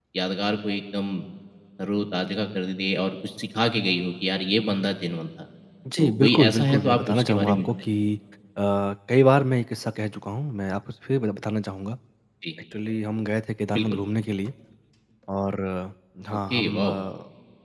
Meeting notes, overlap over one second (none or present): present